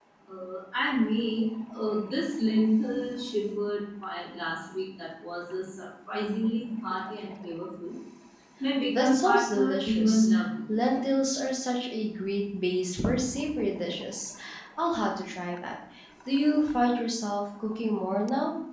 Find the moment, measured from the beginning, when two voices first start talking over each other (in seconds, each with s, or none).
8.9 s